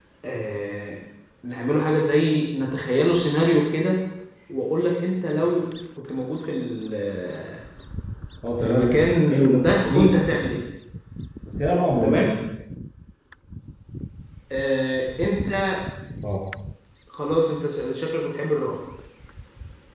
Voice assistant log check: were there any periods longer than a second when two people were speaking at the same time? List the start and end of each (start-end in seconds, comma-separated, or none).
8.6-10.1